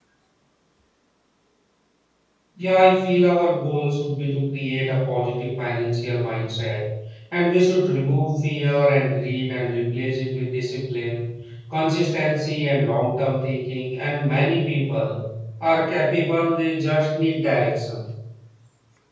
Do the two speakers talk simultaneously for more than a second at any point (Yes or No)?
No